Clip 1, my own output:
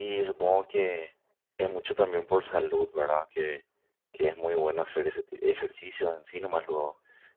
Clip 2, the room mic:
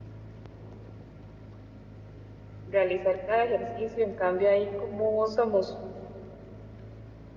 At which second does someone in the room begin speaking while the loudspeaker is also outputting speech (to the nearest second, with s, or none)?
3 s